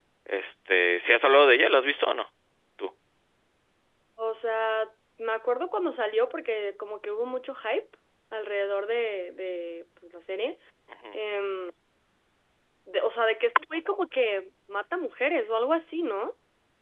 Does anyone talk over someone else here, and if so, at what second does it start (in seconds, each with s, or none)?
none